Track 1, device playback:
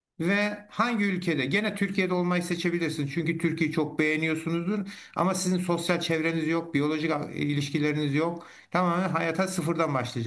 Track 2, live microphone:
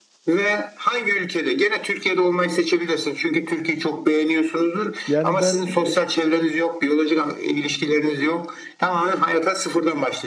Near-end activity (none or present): present